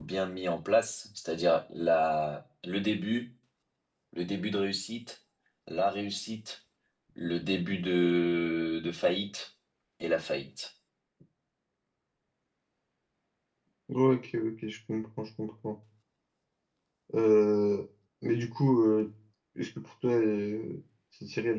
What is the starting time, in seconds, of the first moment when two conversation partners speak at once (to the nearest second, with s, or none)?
none